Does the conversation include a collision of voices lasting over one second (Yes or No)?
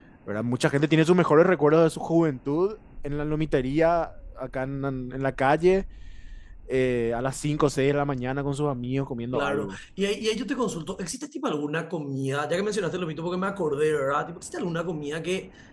No